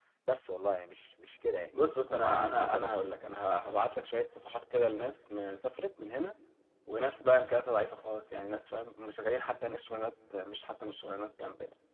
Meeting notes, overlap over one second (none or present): present